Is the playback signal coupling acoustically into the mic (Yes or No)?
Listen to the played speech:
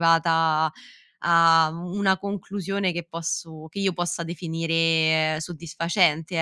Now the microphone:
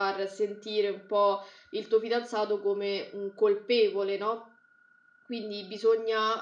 No